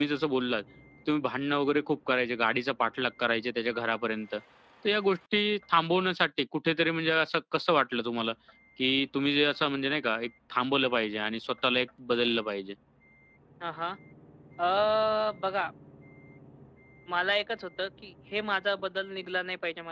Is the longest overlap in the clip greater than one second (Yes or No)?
No